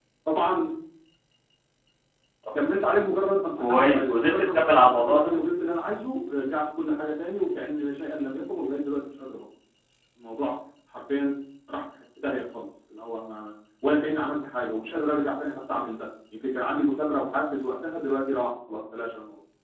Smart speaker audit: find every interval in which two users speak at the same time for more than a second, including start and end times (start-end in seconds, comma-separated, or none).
3.6-5.3